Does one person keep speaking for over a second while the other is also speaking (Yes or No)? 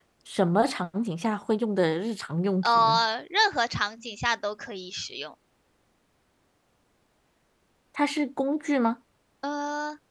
No